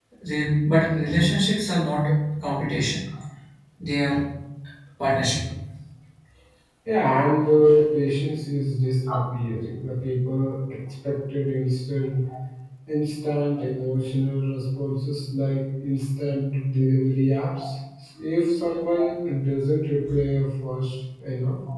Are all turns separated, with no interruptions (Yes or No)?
Yes